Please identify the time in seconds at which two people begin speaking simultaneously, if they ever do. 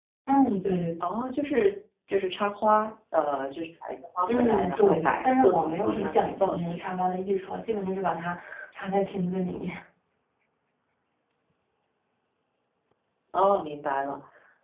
4 s

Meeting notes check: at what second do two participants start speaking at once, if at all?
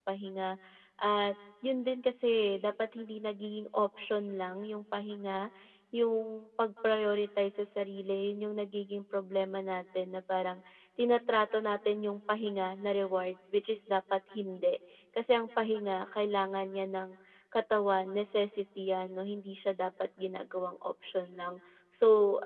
none

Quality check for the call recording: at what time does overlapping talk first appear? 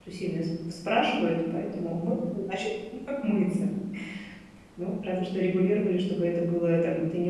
none

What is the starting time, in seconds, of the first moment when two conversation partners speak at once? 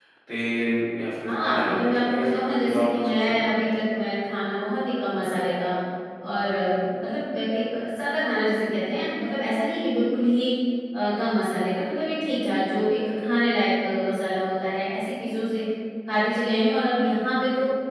1 s

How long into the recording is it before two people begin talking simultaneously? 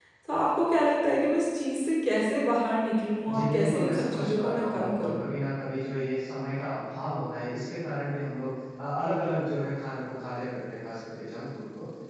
3 s

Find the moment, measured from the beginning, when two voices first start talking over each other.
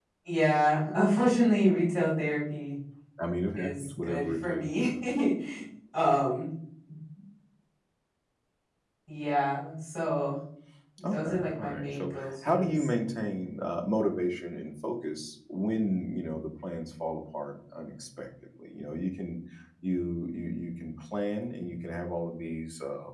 4 s

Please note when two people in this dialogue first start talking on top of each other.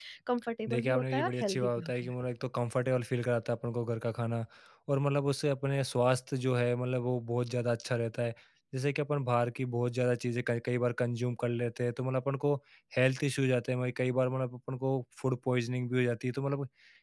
1 s

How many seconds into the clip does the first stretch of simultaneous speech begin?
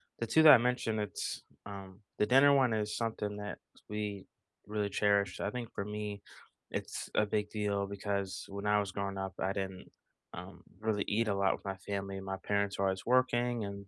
none

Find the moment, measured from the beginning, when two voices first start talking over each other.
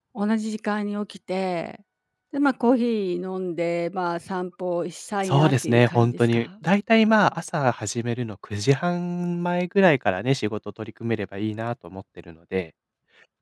5 s

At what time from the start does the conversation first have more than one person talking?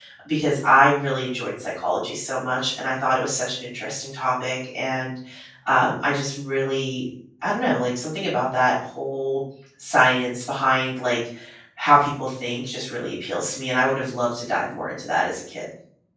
none

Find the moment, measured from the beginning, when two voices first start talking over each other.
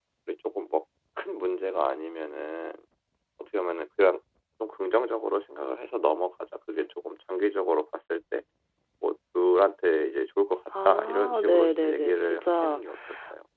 11 s

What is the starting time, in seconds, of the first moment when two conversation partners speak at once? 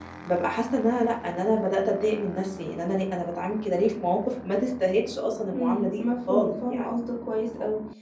6 s

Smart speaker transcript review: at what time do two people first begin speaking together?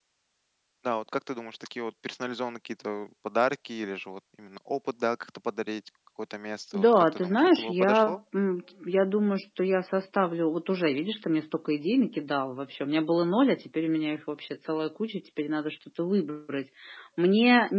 7 s

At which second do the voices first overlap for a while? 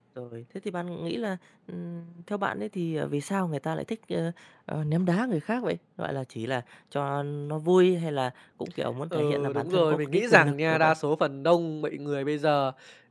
9 s

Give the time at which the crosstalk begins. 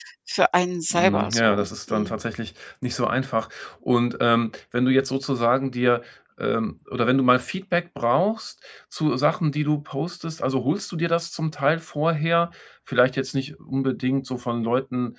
1 s

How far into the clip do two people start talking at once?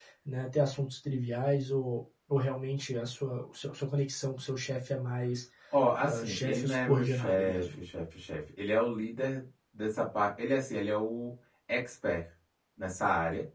6 s

